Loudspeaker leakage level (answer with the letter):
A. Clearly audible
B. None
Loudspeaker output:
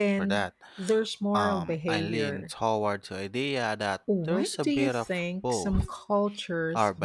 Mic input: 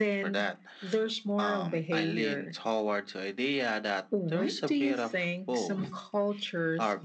A